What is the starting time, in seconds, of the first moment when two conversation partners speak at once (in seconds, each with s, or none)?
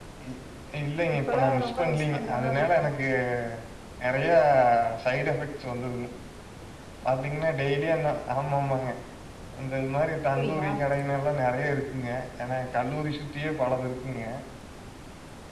1.3 s